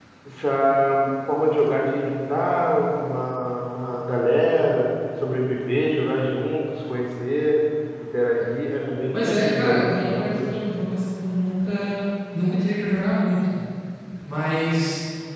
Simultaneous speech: Yes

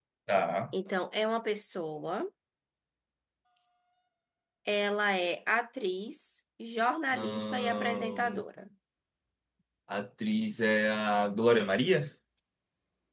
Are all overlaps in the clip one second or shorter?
No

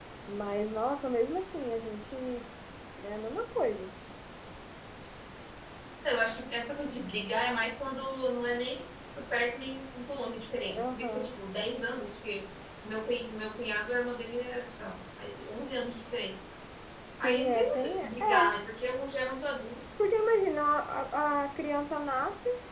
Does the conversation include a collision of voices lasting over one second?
Yes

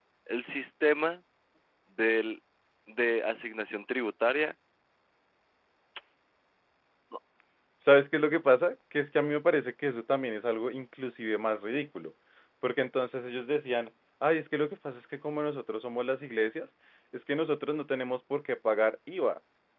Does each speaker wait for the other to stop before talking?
Yes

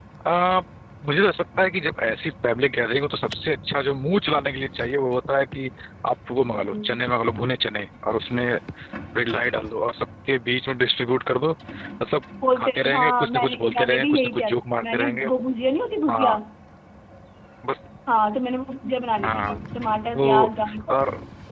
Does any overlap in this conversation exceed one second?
Yes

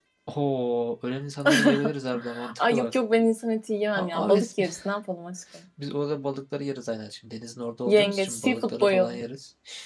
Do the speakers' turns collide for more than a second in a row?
Yes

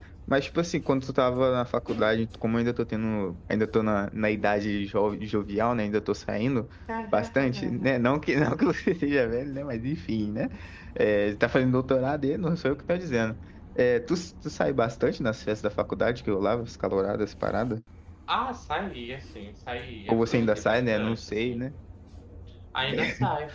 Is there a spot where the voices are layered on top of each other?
Yes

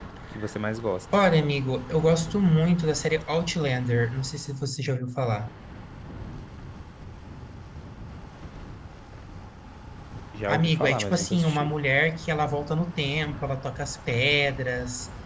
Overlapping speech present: Yes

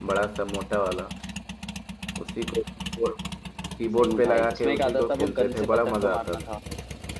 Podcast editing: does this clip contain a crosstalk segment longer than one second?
Yes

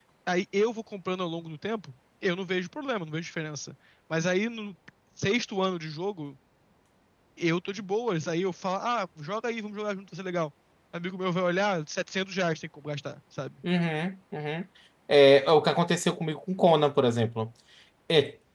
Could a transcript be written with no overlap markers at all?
Yes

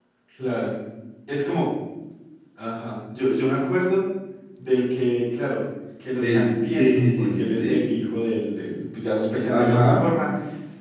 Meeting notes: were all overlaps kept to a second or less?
No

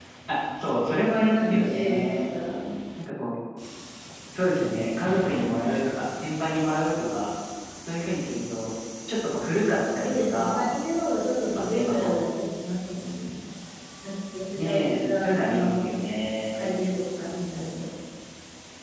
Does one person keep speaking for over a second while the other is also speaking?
Yes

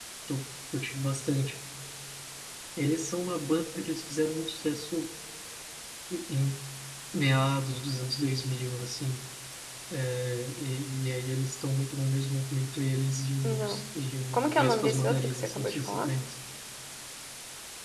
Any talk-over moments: Yes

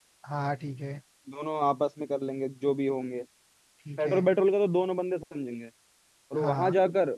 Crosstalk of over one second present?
No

